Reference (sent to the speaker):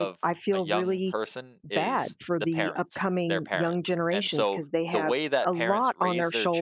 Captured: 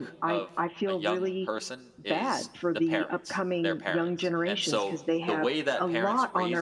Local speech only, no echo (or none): none